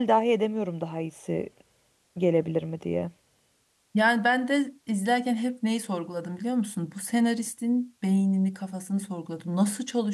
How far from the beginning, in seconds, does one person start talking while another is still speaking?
none

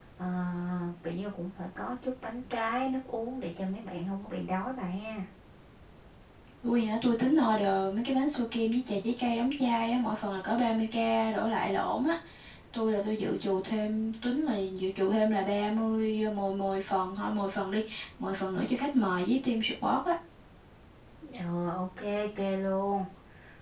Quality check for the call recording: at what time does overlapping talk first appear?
none

